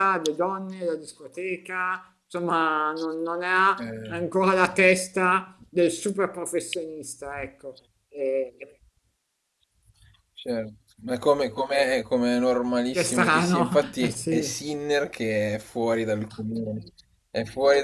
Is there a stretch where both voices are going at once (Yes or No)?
Yes